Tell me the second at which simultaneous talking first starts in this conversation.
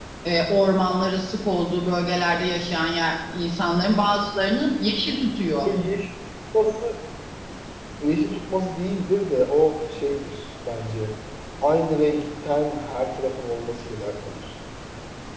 none

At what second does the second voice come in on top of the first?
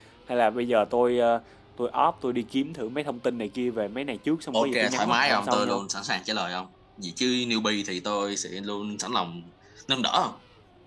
5 s

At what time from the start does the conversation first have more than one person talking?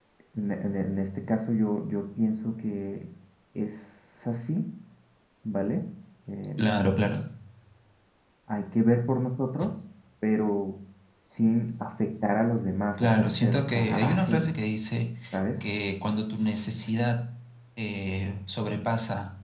13 s

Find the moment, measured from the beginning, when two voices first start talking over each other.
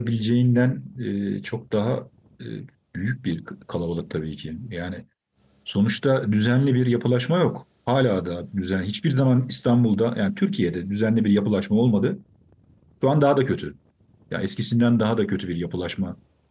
none

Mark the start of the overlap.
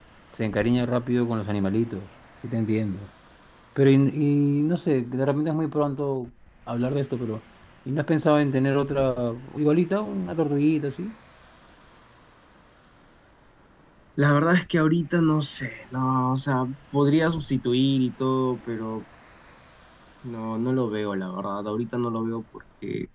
none

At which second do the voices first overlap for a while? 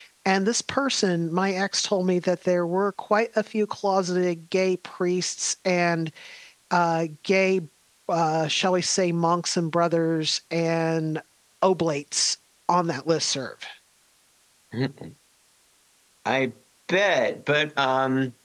none

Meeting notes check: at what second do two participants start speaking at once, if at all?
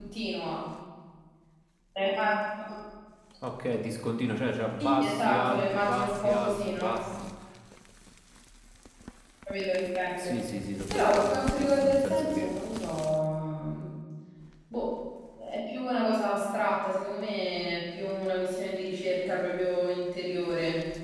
5 s

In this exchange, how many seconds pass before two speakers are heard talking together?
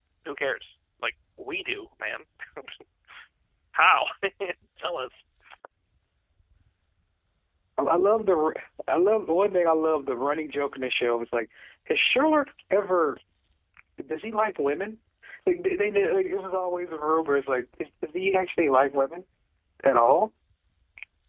none

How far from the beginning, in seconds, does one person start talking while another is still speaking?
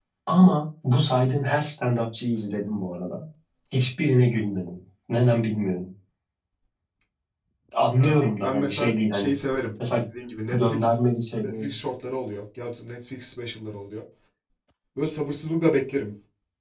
8 s

